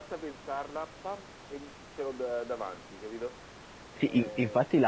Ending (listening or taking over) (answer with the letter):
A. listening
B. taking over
B